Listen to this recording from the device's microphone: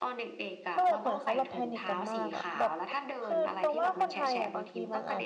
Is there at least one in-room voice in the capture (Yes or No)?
Yes